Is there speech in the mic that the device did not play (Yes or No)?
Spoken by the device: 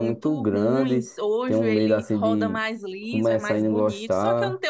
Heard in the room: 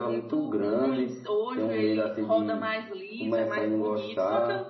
No